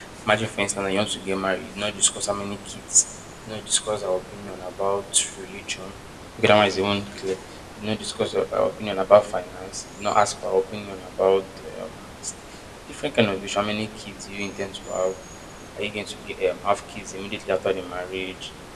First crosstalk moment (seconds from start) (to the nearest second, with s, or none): none